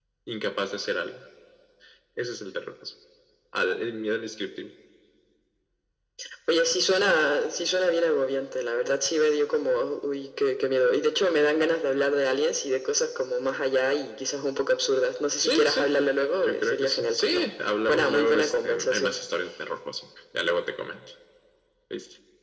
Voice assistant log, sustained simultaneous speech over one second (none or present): present